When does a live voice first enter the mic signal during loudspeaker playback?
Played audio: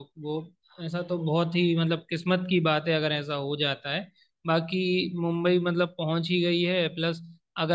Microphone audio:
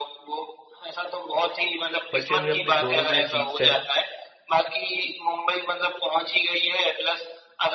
2.1 s

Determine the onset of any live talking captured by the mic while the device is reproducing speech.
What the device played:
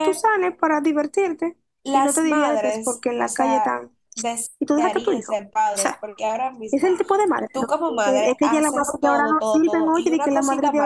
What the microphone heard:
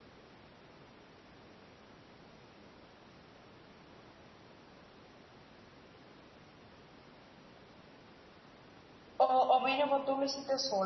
9.2 s

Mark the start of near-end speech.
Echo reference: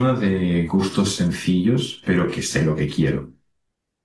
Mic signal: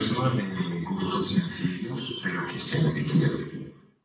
none

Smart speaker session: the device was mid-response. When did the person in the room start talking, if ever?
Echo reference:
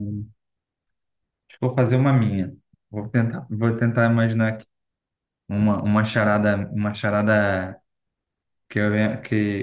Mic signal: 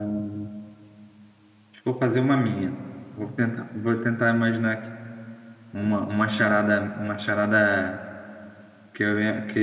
none

